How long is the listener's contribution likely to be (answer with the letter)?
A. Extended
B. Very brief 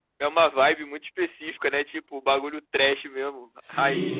A